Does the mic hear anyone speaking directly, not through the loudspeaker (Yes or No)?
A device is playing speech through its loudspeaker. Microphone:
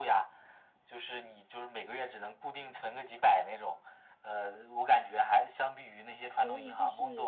Yes